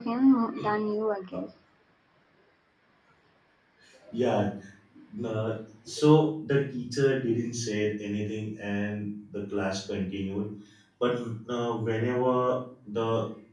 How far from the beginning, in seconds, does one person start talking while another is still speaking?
none

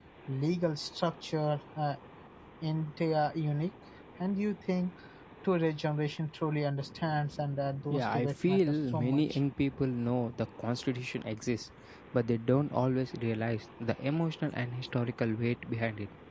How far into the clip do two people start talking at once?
7.9 s

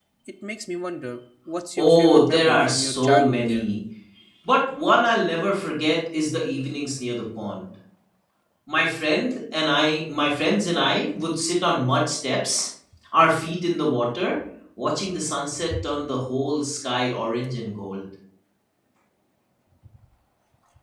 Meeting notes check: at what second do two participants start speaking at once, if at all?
1.8 s

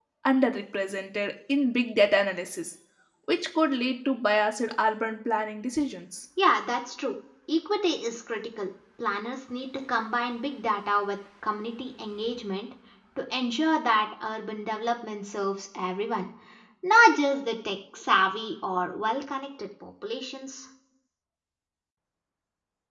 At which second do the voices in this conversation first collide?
none

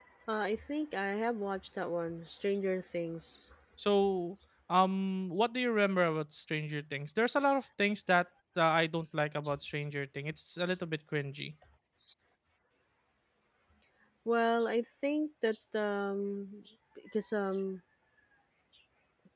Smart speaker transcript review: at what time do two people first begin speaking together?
none

